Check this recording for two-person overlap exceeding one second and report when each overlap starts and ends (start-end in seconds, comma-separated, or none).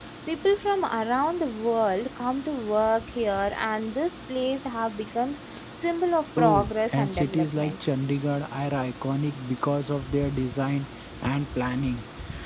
6.4-7.7